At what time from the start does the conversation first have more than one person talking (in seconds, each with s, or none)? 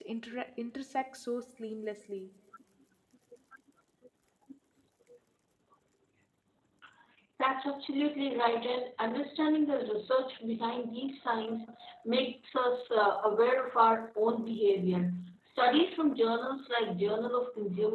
none